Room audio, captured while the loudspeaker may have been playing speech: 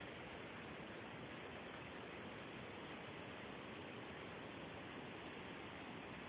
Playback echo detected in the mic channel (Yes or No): No